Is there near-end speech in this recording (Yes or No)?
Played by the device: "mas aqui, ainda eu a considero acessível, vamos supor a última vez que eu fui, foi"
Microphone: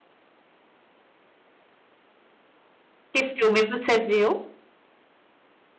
Yes